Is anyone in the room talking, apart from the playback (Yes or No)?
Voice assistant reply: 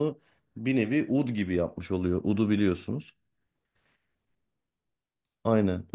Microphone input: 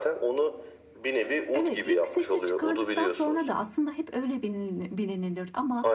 Yes